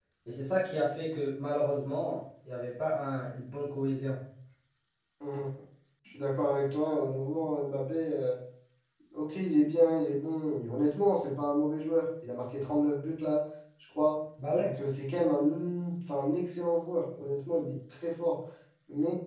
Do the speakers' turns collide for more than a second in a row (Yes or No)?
No